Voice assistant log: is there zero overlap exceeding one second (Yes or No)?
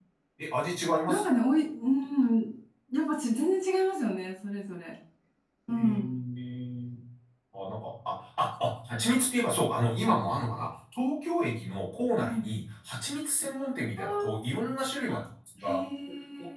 Yes